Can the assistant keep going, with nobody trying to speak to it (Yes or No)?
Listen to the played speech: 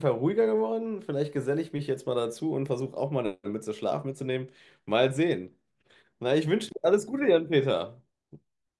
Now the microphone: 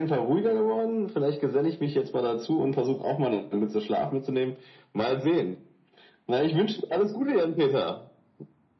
Yes